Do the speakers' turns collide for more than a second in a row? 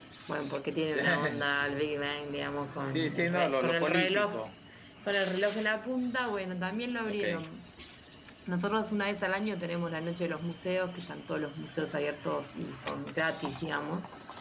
Yes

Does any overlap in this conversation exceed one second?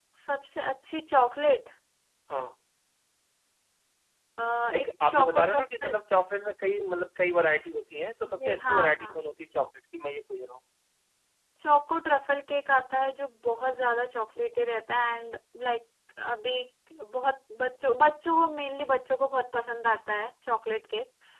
Yes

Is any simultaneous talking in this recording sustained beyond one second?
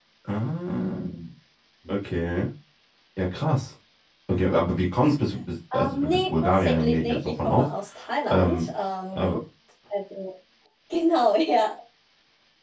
Yes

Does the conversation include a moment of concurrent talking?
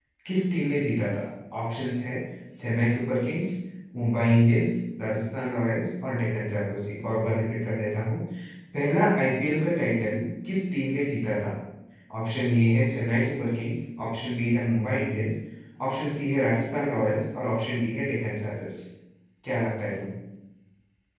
No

